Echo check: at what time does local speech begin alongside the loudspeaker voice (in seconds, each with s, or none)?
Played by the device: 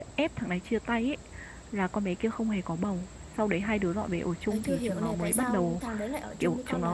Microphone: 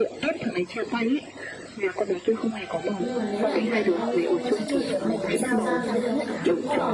3.0 s